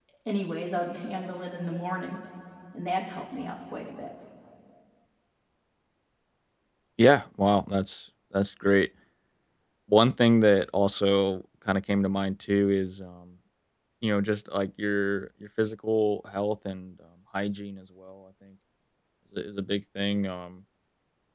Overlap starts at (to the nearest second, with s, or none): none